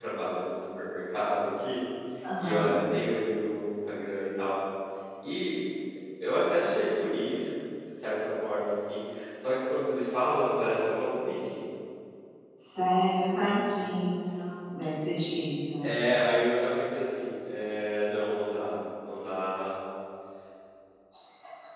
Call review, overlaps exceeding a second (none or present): none